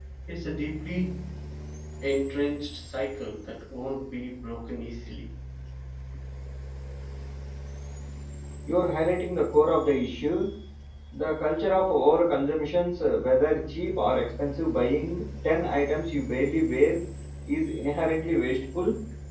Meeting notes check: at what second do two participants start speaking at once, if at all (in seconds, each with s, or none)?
none